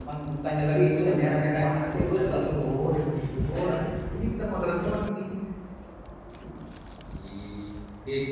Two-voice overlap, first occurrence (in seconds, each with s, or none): 0.6 s